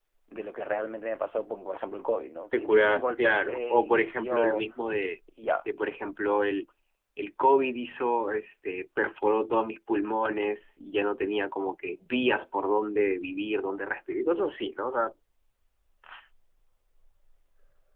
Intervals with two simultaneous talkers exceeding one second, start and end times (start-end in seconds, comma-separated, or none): 2.5-4.6